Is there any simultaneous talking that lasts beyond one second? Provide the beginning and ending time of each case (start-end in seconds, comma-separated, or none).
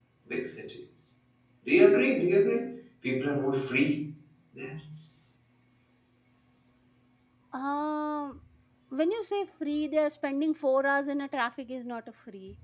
none